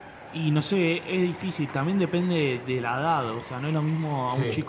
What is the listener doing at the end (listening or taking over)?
listening